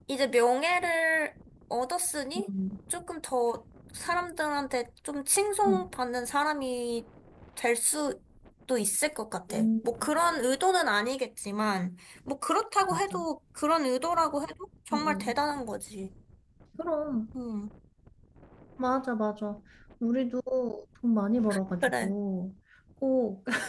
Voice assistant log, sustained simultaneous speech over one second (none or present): none